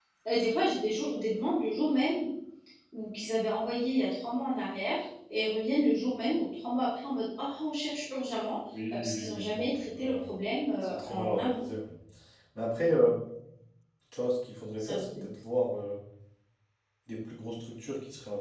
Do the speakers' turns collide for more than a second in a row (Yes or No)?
Yes